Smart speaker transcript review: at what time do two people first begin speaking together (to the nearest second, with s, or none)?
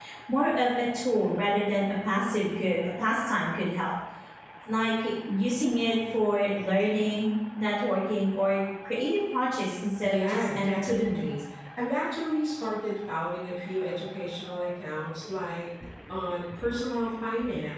10 s